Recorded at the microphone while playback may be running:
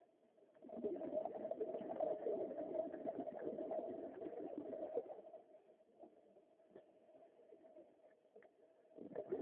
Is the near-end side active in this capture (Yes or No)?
No